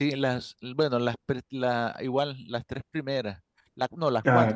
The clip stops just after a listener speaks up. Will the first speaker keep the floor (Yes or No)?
Yes